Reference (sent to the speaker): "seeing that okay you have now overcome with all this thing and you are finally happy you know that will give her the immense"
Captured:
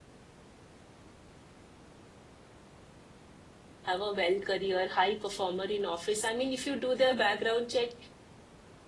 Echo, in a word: none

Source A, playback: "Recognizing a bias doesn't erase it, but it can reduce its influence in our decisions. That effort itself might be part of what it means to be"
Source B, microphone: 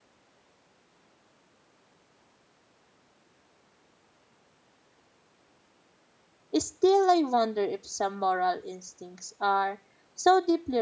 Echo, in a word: none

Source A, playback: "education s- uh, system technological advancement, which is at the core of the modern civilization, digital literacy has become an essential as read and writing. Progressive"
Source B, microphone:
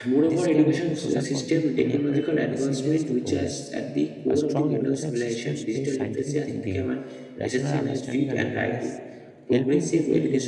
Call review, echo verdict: present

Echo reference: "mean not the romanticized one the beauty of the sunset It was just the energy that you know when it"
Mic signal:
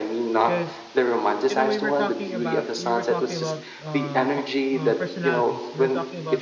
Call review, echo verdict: present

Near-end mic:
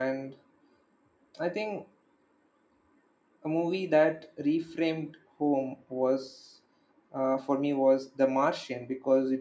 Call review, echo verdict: none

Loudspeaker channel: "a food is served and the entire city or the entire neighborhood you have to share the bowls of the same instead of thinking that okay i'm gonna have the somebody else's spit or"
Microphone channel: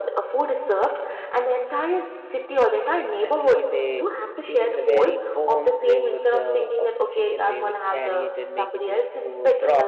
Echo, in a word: present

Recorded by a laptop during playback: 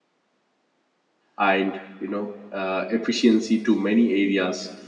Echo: none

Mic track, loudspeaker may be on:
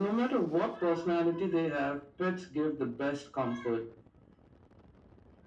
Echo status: present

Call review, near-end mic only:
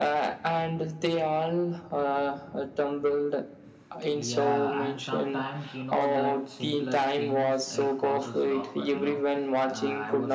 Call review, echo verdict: present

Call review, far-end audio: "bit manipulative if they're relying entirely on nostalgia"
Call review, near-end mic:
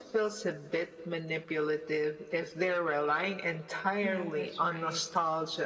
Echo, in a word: present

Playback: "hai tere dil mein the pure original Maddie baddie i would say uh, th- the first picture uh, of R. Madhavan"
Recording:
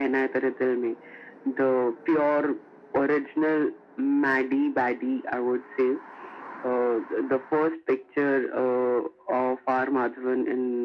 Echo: present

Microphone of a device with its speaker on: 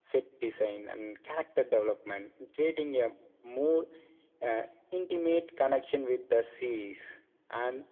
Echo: present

